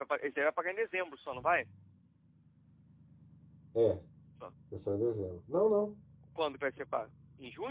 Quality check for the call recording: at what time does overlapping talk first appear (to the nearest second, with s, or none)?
none